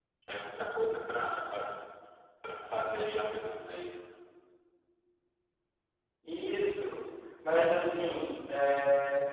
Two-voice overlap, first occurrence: none

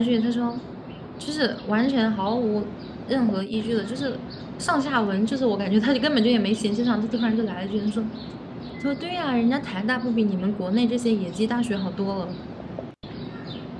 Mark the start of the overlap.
none

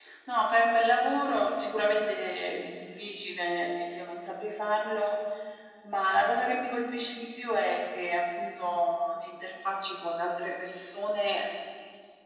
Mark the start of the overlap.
none

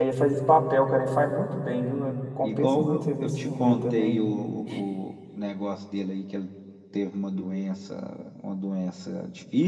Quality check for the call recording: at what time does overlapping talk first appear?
2 s

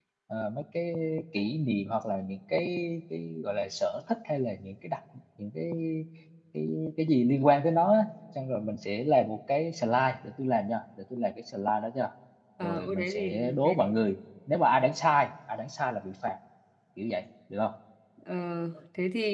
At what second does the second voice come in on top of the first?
13 s

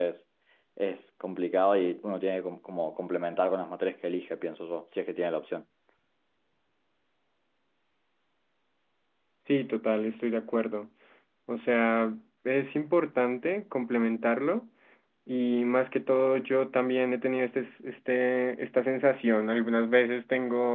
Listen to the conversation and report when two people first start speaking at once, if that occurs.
none

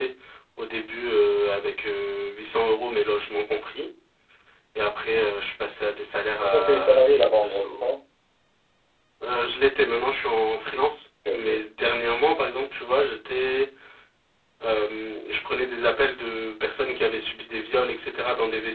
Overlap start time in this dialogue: 6 s

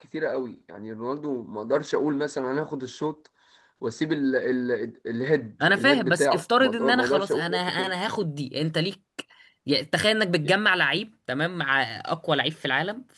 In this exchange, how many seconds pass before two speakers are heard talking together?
6 s

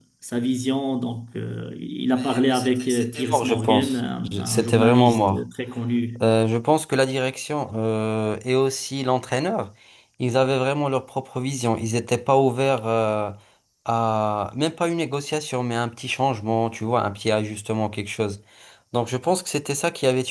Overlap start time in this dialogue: 2 s

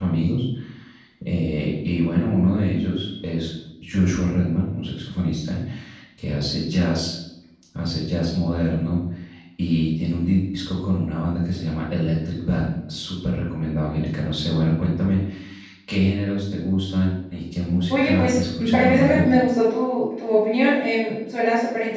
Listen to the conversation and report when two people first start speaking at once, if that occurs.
18 s

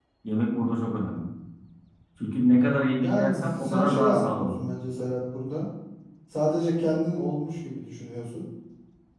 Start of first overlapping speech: 3 s

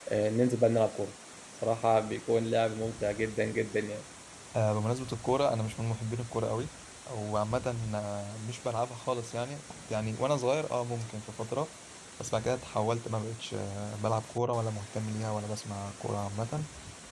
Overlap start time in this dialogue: none

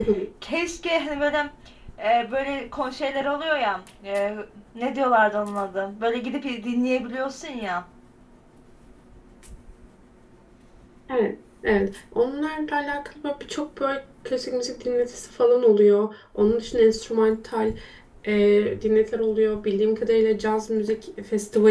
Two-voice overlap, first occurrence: none

